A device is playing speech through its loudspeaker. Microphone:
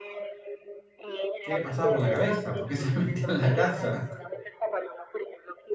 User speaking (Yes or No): Yes